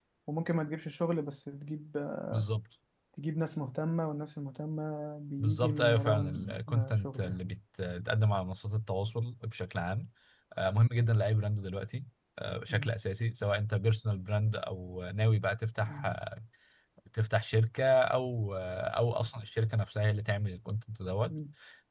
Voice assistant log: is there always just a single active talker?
No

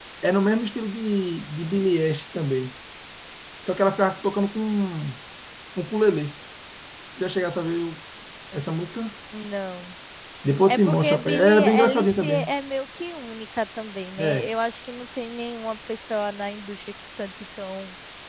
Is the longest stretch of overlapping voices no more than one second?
No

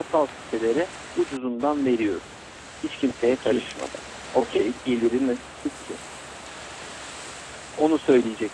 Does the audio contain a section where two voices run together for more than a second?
No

